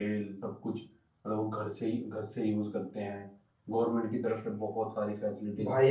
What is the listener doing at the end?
taking over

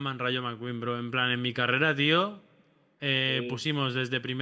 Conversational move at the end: listening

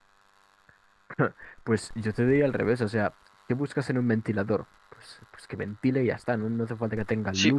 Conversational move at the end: taking over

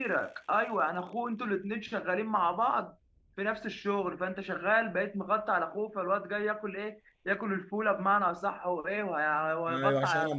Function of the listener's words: taking over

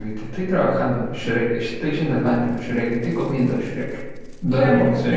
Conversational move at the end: taking over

